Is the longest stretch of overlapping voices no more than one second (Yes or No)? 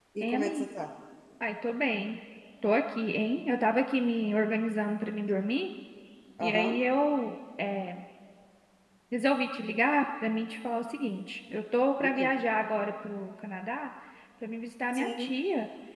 Yes